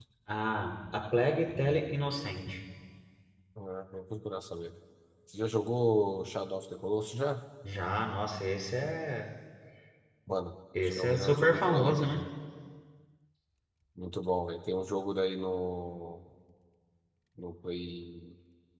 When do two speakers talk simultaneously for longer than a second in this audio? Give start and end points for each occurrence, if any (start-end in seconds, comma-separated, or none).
11.0-12.2